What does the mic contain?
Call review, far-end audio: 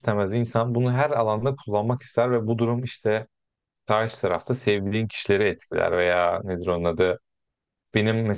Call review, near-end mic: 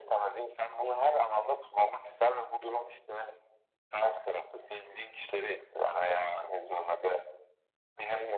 echo only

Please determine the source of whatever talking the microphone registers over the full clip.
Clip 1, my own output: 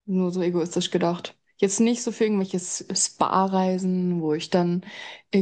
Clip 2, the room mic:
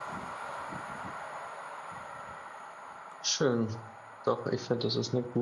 user only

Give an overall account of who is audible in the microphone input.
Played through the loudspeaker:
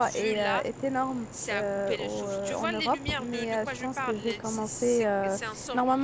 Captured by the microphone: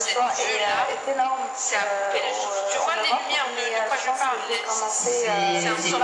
both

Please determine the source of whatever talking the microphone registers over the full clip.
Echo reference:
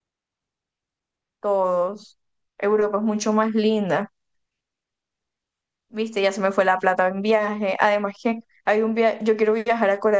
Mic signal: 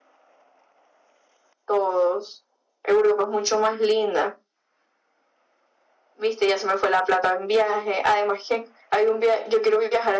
echo only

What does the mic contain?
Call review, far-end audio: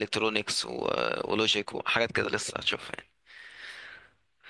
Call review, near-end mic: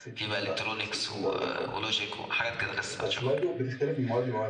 both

